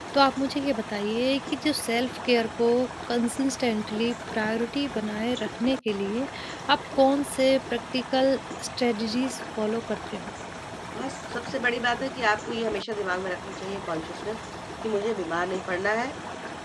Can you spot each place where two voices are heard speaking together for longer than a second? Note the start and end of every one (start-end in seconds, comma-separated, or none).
none